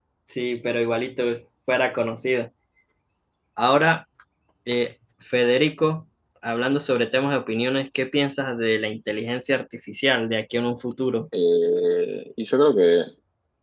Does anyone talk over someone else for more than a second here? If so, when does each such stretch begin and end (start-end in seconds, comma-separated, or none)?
none